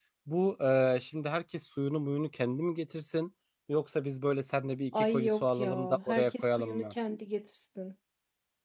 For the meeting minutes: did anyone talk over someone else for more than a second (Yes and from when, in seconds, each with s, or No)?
Yes, from 4.9 s